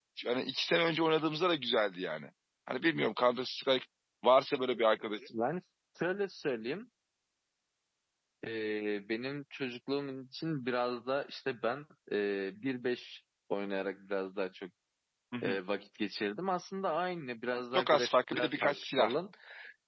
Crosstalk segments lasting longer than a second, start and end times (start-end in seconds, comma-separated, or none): 17.7-19.1